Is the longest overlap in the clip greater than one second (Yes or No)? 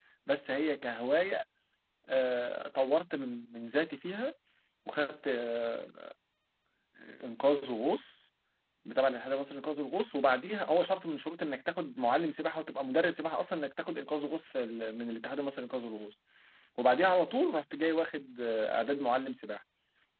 No